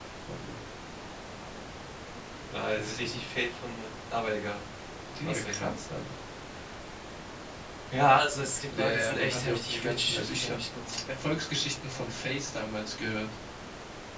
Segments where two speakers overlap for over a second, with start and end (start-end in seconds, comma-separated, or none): 8.7-10.6